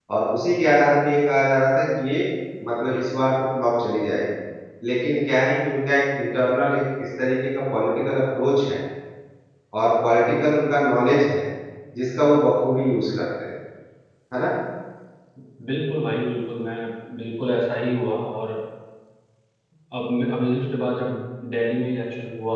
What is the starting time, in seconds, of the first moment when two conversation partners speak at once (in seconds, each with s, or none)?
none